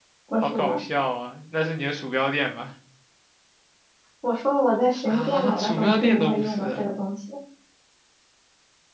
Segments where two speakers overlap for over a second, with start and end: 5.0-6.8

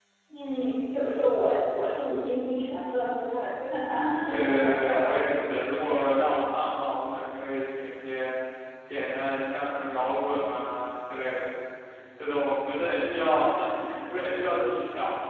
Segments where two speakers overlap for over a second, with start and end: 4.5-5.9

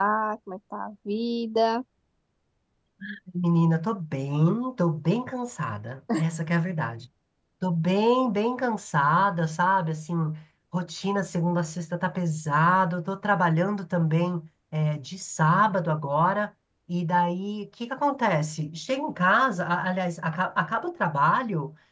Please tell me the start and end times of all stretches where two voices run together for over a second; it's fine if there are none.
none

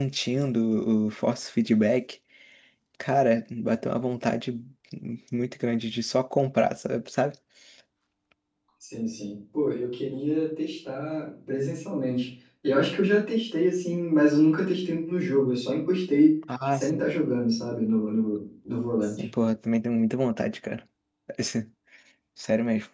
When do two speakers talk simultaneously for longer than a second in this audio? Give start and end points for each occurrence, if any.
none

